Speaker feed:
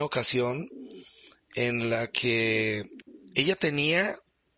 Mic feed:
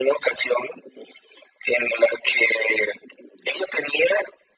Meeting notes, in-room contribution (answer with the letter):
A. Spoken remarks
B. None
B